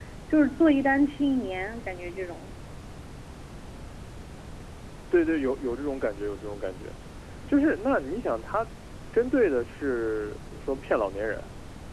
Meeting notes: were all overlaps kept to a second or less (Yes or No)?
Yes